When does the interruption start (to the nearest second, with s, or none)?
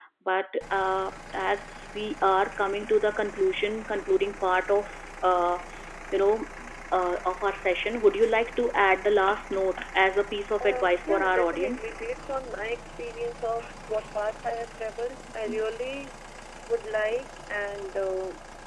11 s